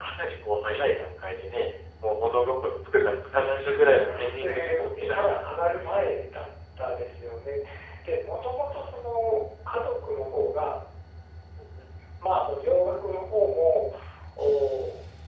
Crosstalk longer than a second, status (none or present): present